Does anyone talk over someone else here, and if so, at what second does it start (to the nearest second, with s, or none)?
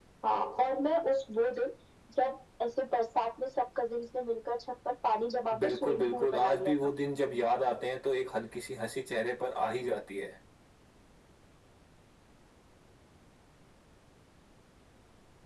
6 s